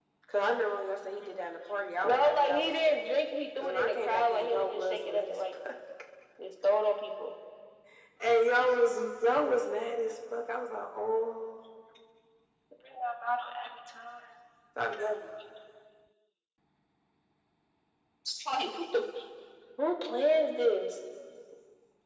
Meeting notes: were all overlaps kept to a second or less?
No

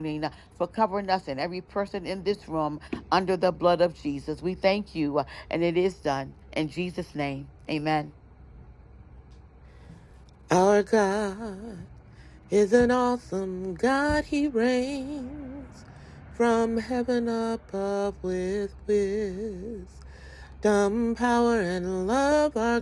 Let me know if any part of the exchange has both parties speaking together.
No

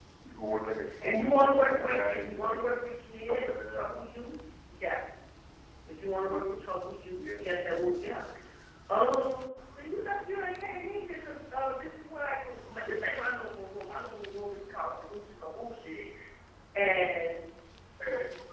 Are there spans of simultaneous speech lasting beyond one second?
Yes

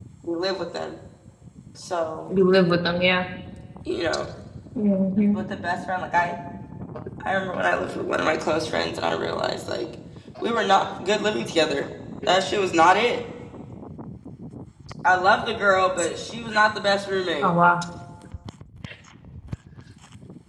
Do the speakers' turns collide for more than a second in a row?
No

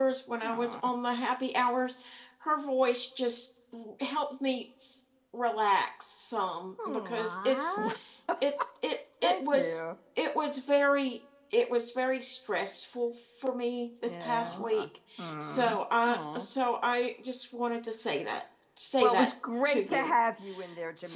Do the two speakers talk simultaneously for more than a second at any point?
No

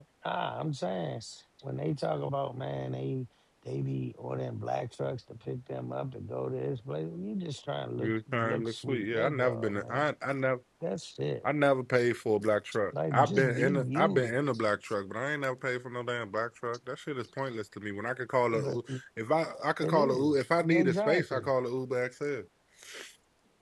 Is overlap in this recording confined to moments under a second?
No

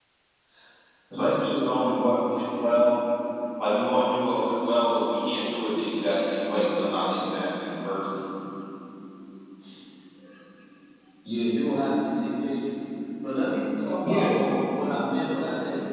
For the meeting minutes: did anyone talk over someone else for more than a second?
No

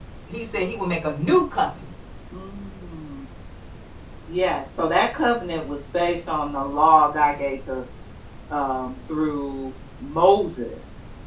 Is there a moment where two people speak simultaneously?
No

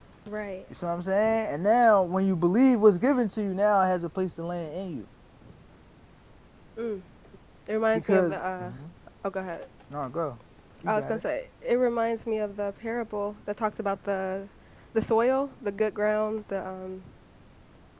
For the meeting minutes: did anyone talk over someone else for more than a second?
No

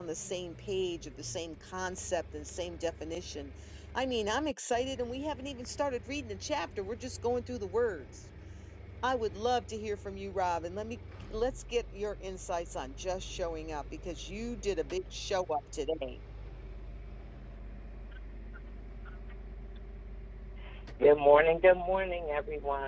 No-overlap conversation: Yes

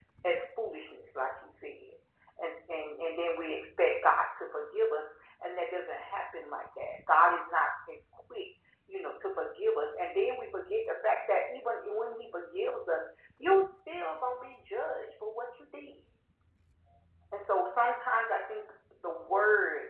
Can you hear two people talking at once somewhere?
No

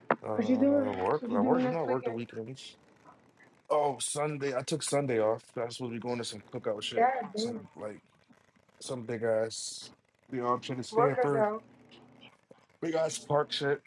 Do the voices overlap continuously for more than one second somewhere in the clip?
Yes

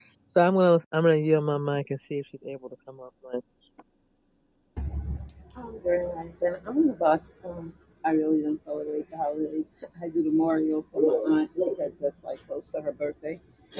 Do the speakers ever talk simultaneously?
No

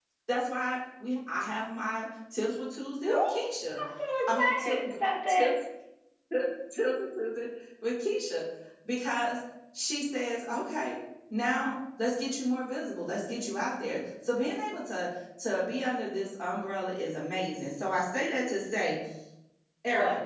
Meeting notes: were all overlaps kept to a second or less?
Yes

